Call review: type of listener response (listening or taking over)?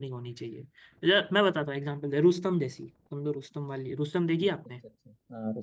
taking over